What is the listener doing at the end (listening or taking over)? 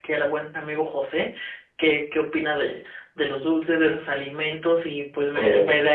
listening